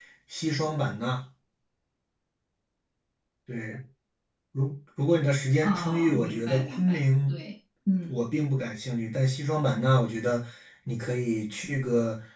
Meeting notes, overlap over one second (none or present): present